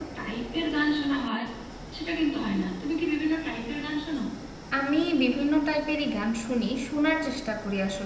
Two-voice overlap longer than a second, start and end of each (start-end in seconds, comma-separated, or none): none